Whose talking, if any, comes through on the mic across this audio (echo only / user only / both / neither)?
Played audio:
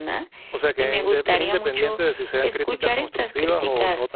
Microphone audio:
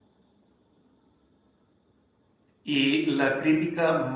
user only